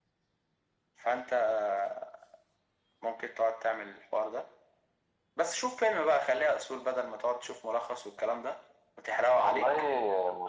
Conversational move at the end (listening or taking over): taking over